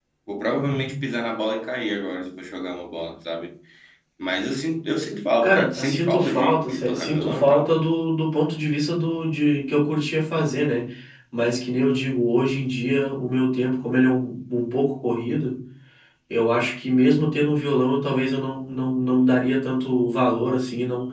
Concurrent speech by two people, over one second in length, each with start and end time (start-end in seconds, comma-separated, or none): 5.4-7.7